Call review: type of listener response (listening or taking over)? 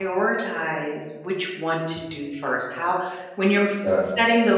listening